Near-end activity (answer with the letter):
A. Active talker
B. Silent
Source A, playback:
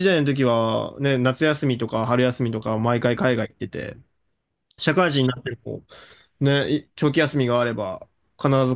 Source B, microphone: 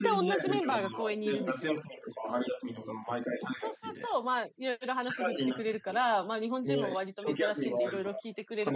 A